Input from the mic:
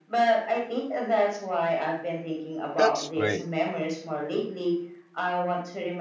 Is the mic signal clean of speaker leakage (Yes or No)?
No